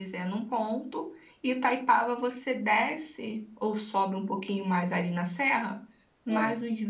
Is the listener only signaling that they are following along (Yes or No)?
Yes